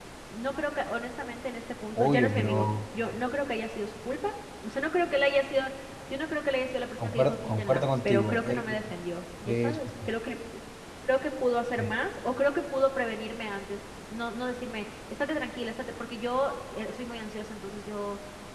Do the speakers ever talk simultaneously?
Yes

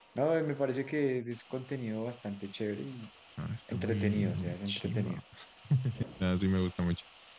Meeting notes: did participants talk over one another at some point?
Yes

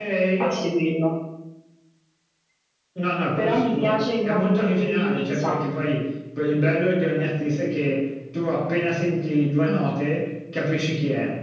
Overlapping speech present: Yes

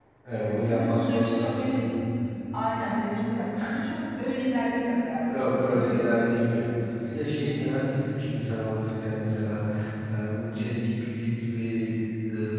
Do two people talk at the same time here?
Yes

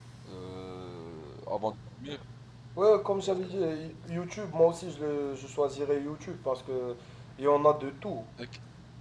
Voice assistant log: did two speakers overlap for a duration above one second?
No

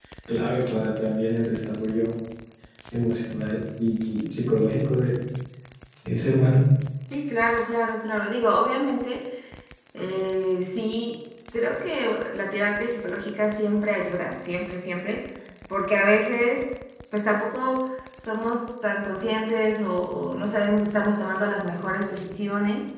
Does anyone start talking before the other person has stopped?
No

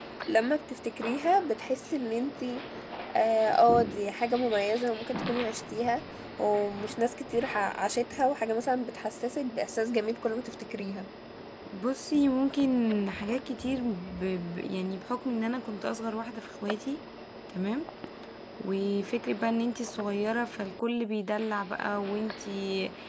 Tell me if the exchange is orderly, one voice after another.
Yes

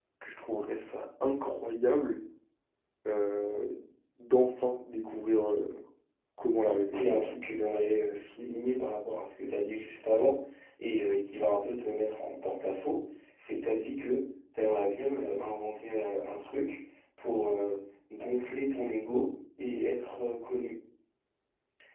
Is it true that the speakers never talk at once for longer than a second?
Yes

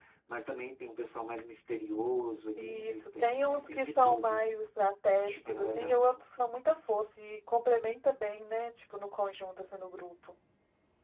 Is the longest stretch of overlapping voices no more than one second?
No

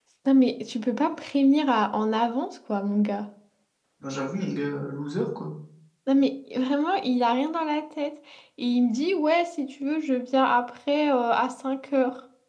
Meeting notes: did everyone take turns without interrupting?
Yes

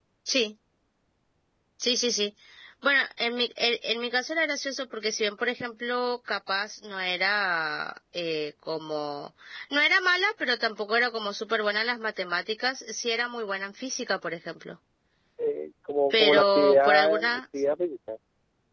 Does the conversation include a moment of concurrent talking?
Yes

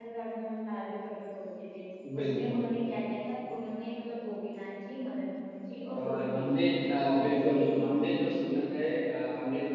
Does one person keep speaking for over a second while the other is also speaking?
Yes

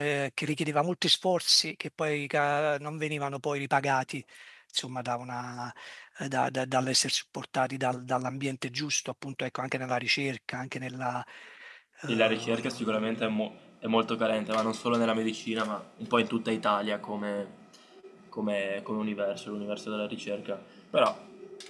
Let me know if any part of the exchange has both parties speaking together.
Yes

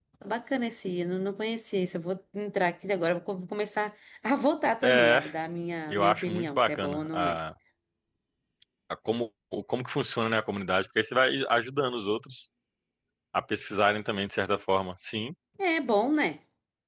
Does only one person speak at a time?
No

